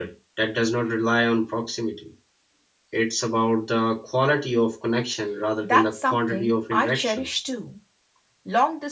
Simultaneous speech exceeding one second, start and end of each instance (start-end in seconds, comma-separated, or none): 5.6-7.2